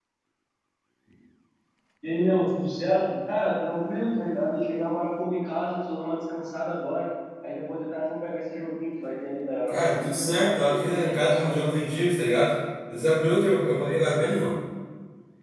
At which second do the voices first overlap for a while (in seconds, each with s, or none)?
9.7 s